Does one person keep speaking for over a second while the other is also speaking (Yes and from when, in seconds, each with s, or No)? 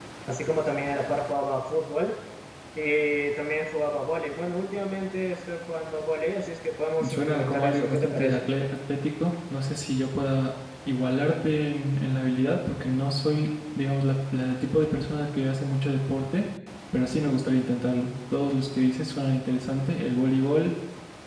Yes, from 7.0 s